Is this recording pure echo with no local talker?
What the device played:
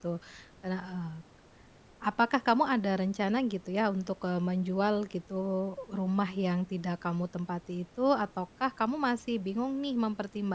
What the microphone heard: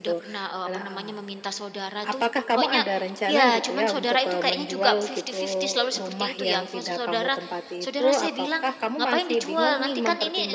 No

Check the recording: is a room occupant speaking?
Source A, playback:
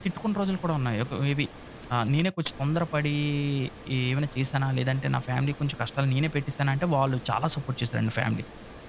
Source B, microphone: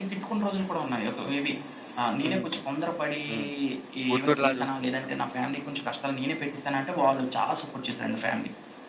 Yes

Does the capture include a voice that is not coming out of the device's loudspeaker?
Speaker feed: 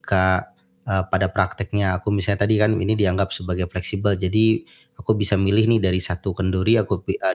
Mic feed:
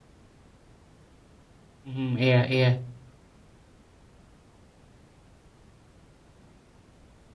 Yes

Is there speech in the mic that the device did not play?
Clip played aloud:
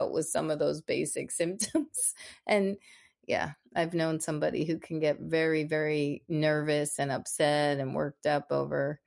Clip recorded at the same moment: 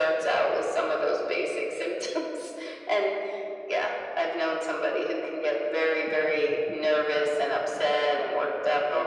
No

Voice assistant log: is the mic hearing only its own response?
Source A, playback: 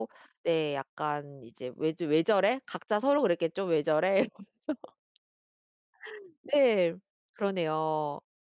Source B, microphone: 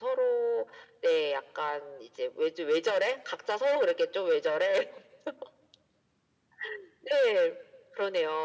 Yes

